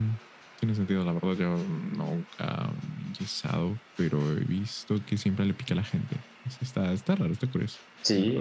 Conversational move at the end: taking over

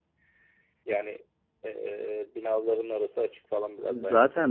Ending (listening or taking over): taking over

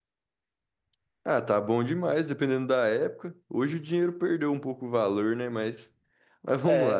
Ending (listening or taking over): taking over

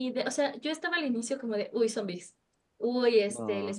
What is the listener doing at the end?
listening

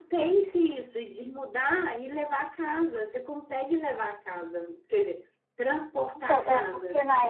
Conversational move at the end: taking over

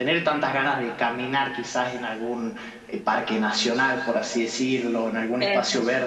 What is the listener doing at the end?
listening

